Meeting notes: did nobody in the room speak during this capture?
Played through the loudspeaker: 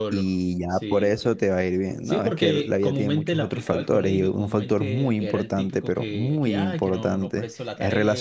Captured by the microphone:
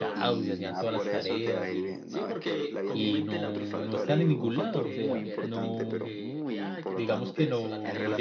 No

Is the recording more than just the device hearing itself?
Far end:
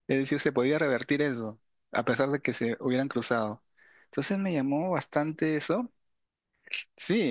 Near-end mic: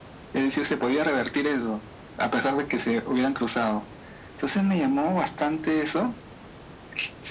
No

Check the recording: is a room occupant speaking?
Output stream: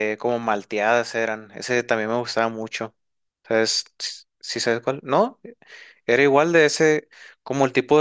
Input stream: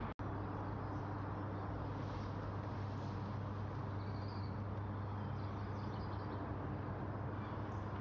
No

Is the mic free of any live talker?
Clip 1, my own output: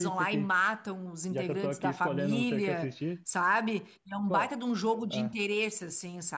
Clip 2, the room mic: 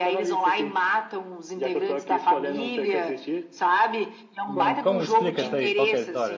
No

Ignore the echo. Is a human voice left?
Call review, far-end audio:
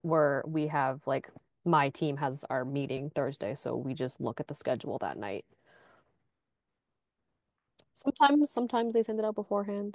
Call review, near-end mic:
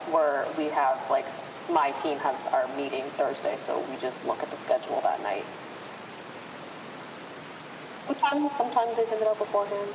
No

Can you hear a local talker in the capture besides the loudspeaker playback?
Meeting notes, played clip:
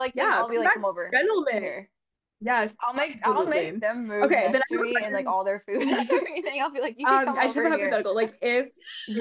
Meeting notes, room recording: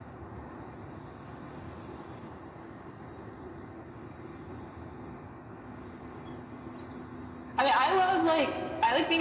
Yes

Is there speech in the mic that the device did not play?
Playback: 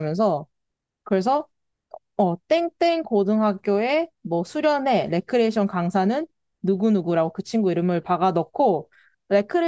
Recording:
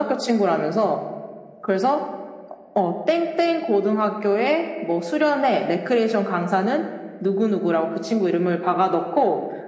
No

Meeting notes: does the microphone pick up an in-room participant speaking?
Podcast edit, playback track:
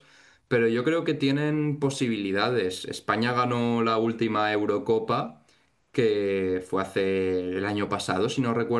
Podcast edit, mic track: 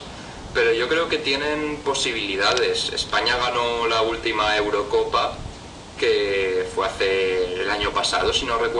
No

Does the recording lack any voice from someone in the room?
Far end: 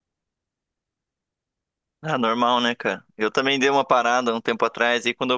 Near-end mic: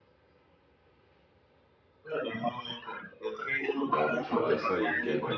No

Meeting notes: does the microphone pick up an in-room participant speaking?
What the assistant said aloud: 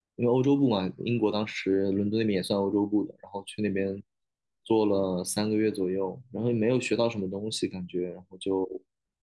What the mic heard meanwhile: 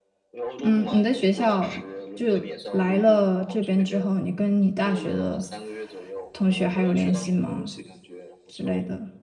Yes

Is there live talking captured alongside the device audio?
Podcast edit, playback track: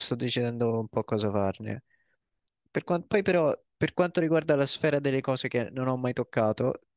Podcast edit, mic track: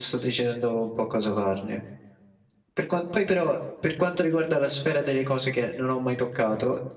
No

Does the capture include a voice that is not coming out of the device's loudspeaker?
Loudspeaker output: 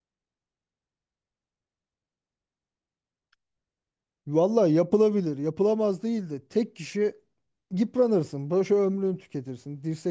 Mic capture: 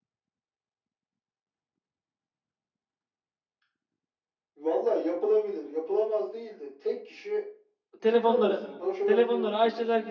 Yes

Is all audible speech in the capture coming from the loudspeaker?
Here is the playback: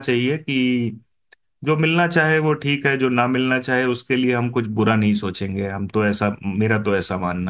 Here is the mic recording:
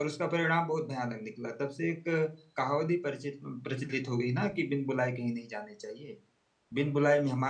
No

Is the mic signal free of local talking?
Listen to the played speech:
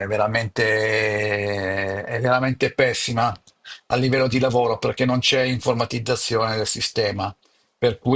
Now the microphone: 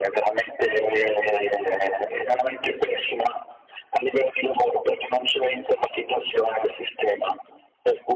Yes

